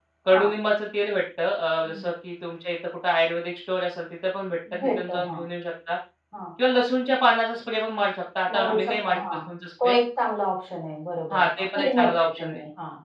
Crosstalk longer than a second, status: present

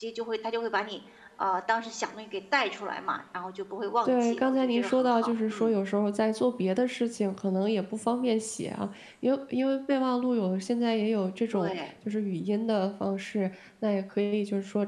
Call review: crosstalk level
present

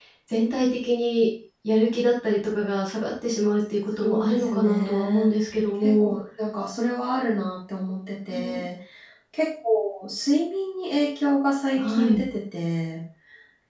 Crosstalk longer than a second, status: present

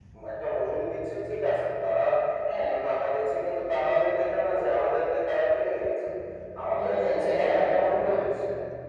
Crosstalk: present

